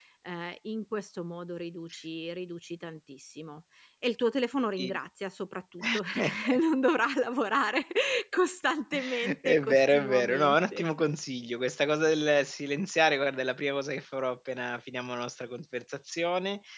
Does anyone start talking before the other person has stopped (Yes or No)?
Yes